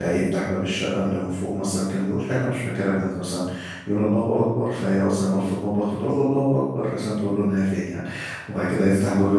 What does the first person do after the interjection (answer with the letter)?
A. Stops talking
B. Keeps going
B